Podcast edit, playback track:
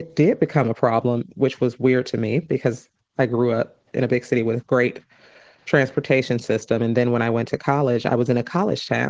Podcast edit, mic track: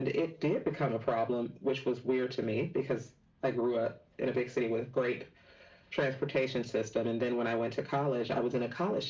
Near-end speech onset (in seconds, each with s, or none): none